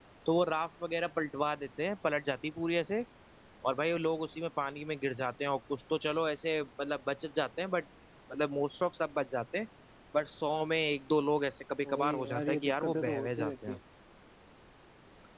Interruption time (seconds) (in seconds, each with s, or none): 11.8 s